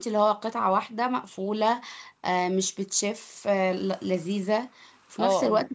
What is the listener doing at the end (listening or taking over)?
taking over